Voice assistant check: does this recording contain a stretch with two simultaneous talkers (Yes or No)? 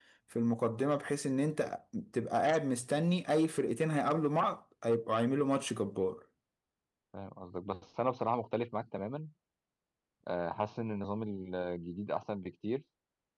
No